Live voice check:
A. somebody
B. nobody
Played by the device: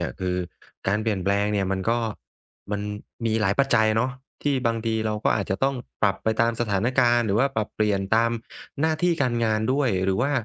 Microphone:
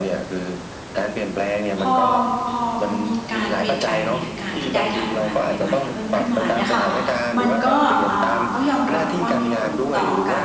A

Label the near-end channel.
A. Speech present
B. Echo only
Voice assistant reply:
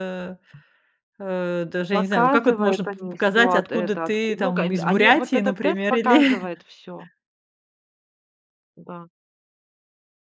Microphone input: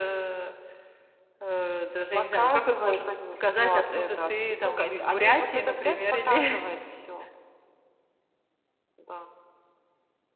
B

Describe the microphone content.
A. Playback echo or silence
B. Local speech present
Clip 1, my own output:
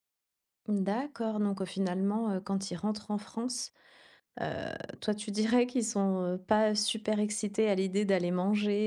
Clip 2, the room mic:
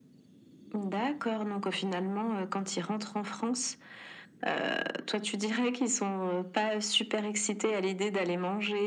A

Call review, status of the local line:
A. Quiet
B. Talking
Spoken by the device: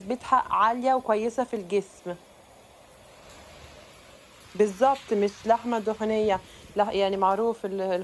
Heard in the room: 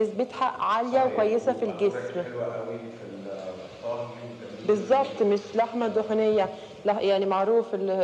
B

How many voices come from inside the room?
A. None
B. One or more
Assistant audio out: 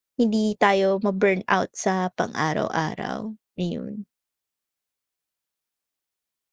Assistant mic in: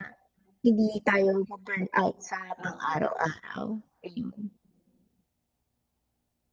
B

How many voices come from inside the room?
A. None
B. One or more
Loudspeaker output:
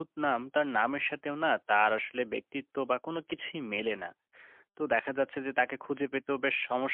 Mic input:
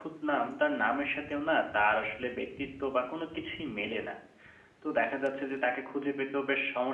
A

